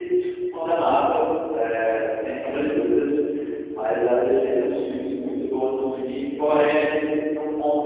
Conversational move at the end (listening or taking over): listening